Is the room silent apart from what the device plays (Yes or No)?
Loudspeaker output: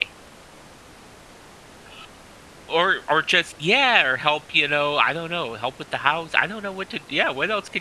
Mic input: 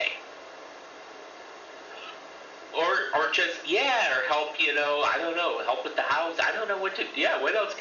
Yes